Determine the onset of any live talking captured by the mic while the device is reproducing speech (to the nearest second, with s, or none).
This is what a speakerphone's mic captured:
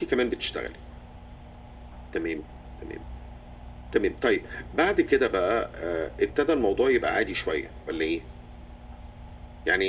none